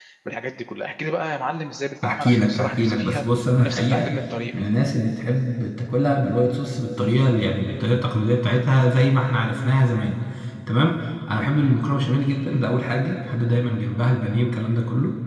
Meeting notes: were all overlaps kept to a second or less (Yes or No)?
No